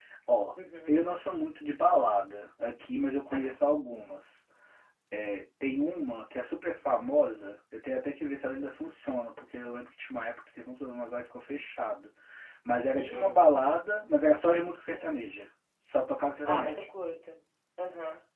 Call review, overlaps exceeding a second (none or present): none